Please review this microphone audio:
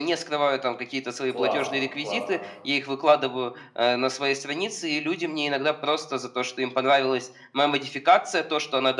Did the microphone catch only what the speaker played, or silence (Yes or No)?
No